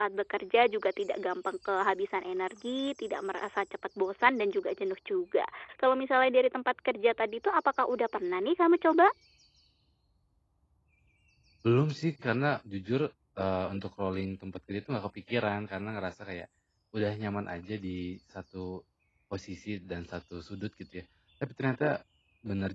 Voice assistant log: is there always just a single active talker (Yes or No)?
Yes